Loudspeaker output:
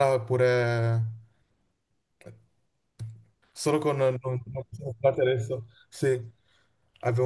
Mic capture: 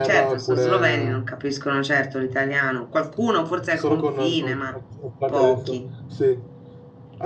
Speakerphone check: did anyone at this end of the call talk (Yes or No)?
Yes